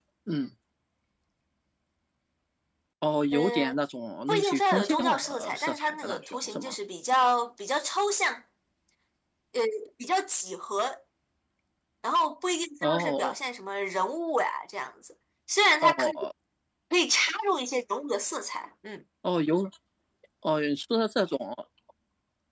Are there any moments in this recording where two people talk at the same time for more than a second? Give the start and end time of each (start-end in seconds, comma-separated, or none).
4.3-6.8